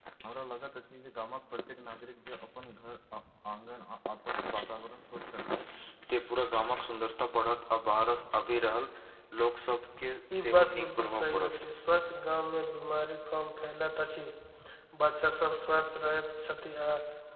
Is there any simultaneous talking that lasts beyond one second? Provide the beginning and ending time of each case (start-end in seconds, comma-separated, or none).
10.4-11.7